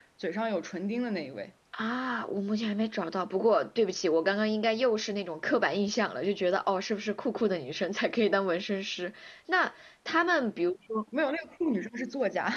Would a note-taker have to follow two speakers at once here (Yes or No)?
No